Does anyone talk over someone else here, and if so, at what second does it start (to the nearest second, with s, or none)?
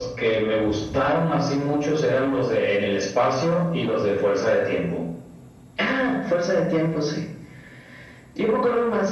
none